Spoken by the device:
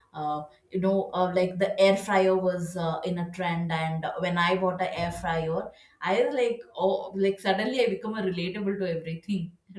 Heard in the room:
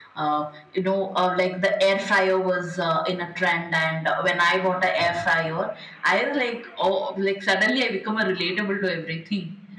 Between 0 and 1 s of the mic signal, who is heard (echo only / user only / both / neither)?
echo only